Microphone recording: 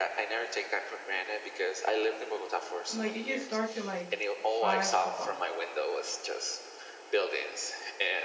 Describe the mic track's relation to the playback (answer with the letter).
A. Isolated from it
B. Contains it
B